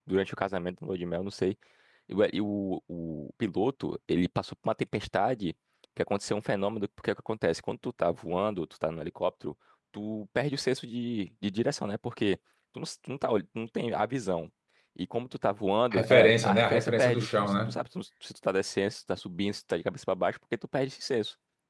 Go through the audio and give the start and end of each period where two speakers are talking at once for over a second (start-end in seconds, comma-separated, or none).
15.9-17.8